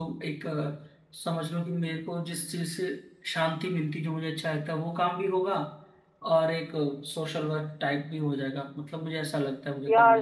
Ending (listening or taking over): taking over